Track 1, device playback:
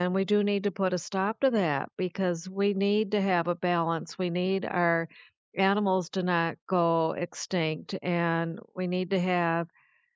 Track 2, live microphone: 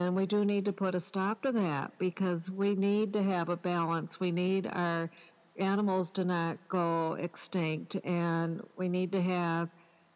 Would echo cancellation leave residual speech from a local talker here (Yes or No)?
No